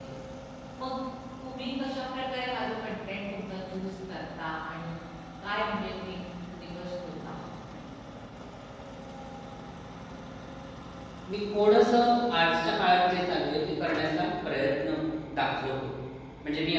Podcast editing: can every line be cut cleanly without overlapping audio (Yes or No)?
Yes